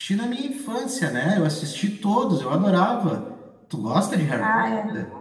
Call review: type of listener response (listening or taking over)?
taking over